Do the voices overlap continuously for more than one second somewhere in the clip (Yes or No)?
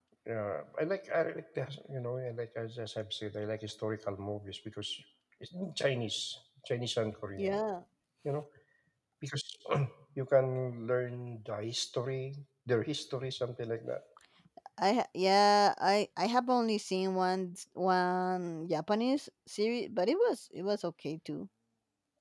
No